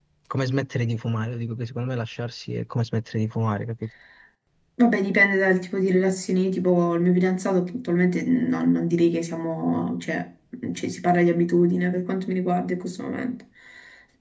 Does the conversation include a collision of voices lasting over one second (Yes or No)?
No